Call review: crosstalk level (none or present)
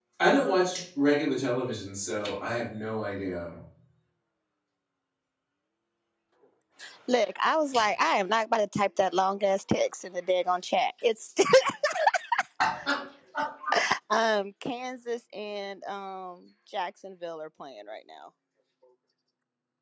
none